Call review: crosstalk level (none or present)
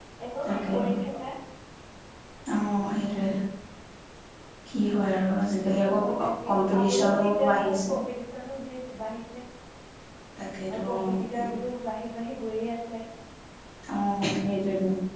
present